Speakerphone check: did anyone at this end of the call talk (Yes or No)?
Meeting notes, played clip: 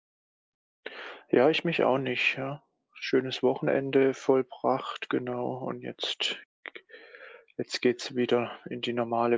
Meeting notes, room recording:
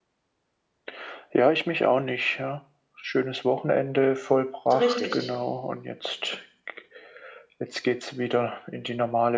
Yes